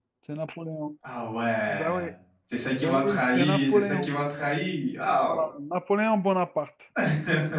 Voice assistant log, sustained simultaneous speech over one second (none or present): present